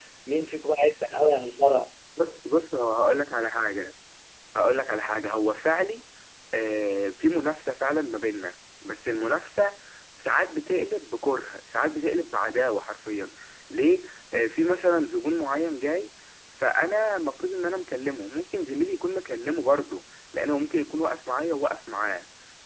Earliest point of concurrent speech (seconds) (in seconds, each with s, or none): none